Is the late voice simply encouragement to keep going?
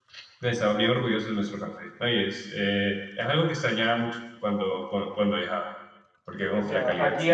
No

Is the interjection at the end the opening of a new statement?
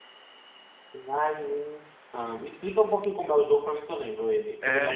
Yes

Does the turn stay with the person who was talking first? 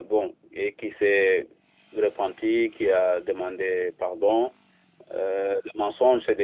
Yes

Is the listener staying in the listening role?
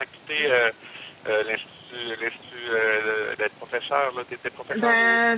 No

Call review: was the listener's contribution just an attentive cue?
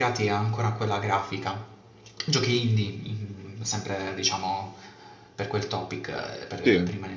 Yes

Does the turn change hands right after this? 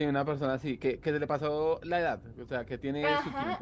Yes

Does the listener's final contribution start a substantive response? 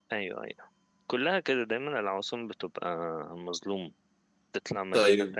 No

